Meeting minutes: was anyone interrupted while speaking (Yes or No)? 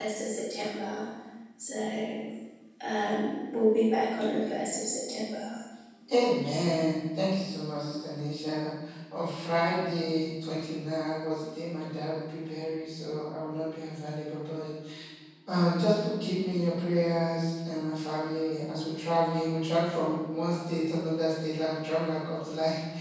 No